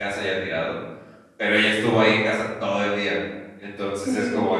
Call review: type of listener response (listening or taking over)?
listening